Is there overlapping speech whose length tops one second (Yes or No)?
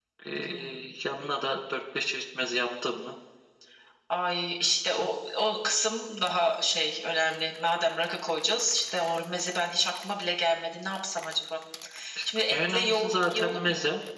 Yes